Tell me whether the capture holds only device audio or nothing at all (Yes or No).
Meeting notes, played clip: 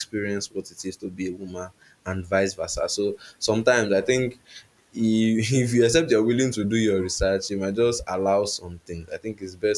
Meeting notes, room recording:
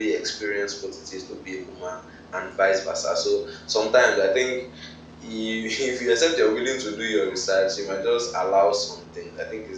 Yes